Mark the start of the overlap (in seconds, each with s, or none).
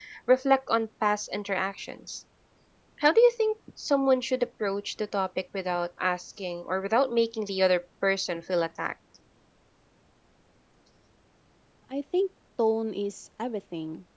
none